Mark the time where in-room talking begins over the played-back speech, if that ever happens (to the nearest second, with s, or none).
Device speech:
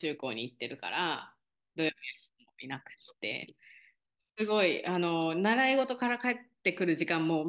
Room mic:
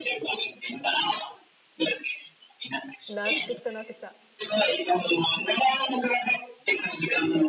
3 s